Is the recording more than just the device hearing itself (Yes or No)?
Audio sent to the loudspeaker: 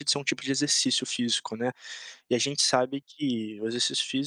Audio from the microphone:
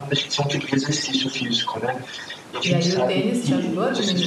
Yes